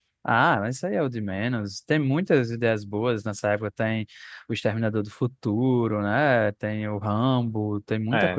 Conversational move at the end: taking over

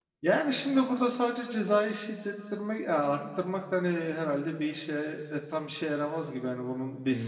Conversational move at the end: taking over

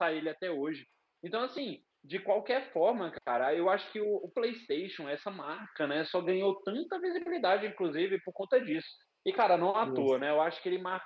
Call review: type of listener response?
listening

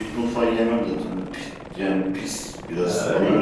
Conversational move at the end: taking over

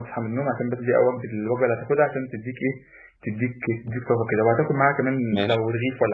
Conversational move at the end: listening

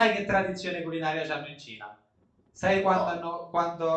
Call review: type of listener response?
listening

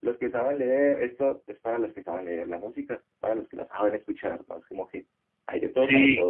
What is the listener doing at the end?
listening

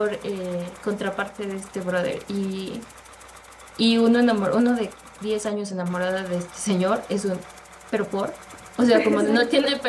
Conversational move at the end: listening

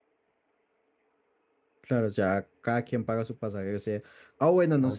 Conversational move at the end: listening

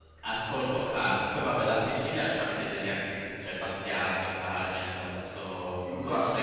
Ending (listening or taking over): taking over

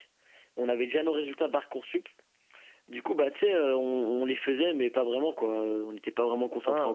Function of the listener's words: taking over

